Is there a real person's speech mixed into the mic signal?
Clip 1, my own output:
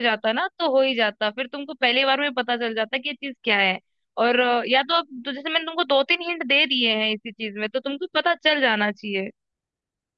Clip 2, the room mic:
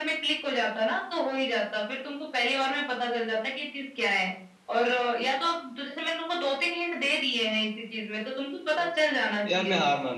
Yes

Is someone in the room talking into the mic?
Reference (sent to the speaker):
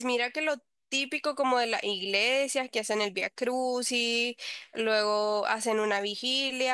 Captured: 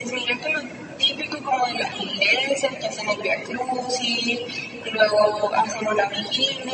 No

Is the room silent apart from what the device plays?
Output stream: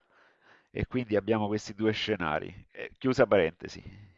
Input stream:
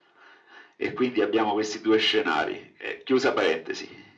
Yes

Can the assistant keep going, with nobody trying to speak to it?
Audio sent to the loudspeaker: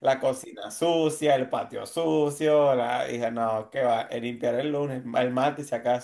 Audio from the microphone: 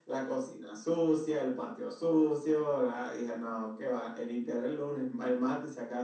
Yes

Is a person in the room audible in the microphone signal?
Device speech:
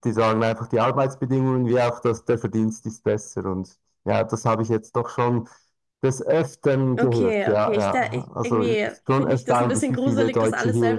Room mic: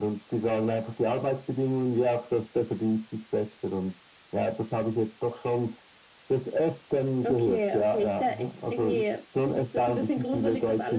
No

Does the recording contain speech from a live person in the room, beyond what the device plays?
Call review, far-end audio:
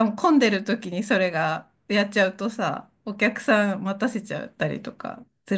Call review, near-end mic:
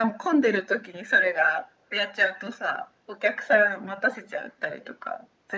No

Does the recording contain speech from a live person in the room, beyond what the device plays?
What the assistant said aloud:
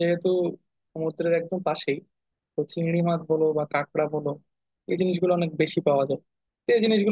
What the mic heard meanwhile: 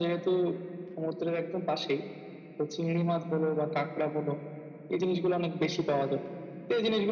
No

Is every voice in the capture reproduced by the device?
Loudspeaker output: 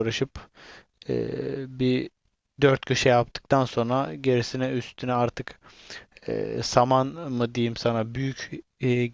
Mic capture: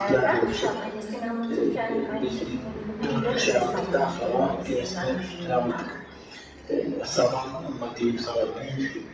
No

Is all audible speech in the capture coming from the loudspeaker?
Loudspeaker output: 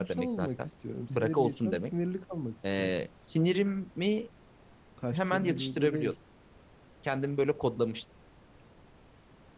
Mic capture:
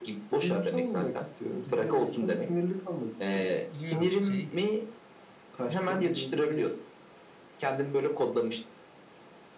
No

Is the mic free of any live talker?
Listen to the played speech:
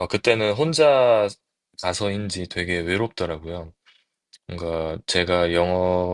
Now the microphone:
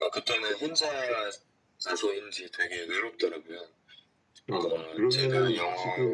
No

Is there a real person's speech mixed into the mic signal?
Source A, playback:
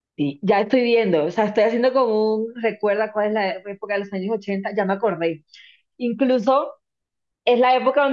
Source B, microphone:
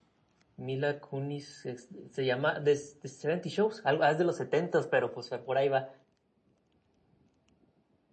Yes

